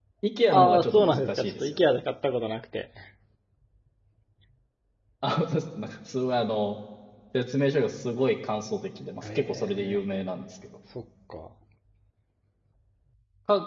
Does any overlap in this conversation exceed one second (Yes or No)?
Yes